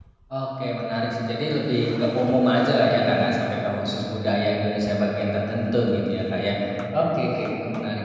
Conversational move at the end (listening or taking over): listening